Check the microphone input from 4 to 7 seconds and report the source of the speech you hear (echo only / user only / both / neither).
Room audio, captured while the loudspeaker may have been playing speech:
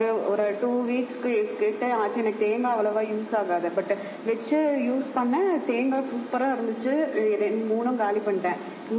echo only